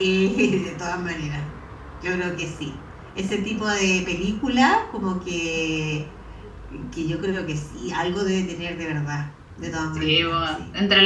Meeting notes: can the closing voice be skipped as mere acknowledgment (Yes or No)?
No